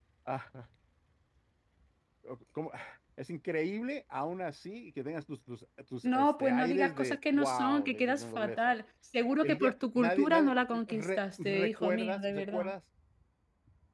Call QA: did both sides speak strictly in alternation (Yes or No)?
No